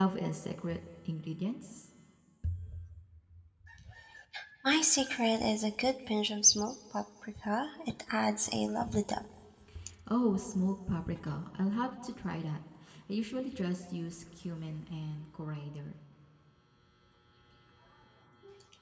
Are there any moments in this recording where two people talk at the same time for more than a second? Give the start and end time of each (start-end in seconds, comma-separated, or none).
none